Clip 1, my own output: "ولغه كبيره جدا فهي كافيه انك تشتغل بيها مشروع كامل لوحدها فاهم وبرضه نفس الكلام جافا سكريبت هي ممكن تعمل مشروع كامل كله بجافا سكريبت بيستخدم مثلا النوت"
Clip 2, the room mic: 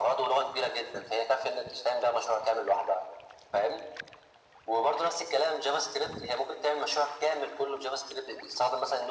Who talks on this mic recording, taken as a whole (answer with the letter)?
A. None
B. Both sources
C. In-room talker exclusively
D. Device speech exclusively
D